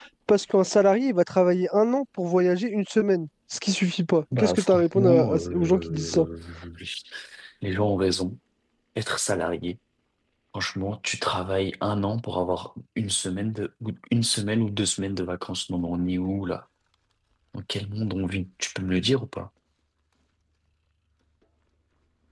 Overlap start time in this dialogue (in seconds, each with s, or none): 4.3 s